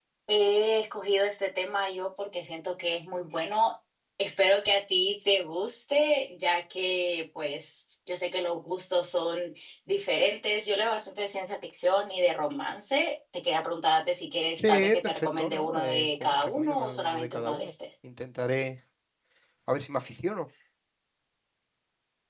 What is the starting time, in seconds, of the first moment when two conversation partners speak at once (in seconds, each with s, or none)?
14.6 s